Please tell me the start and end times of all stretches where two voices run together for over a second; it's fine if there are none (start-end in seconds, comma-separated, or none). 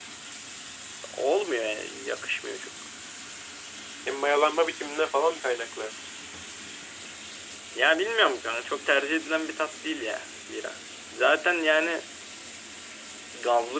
none